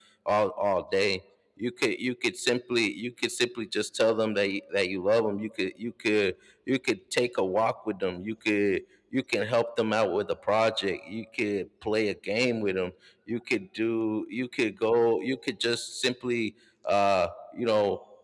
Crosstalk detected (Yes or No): No